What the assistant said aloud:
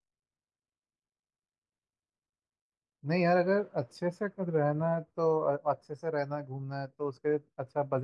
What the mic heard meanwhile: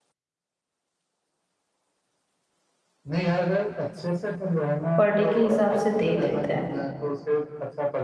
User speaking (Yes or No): Yes